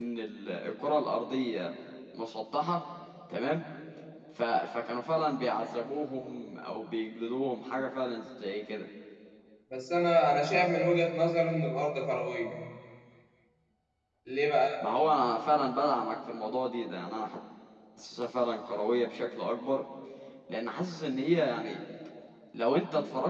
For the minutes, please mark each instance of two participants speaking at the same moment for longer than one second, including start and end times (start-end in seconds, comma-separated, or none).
none